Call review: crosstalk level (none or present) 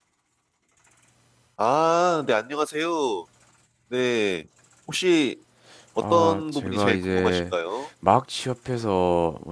present